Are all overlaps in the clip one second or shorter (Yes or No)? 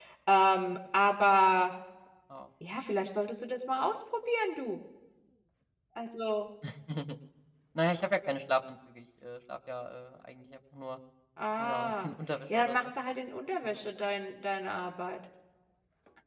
Yes